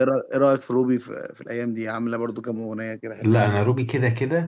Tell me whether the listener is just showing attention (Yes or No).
No